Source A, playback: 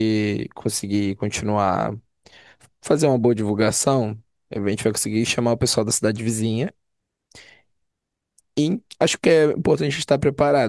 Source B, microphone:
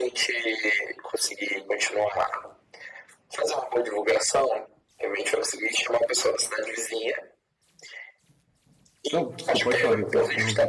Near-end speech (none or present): present